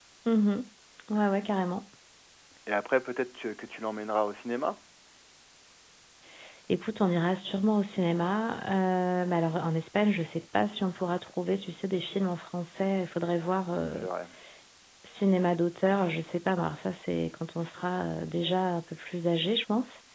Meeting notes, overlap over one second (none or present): none